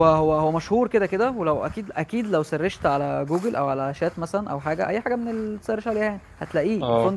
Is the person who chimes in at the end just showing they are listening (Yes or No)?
Yes